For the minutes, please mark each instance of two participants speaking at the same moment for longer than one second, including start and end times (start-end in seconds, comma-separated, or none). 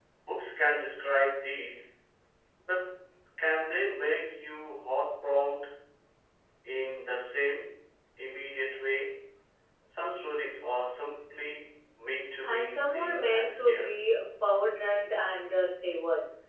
12.5-14.0